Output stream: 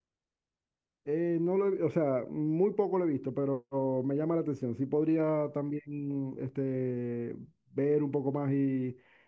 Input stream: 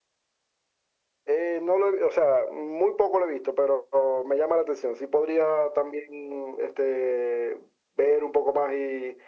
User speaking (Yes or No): No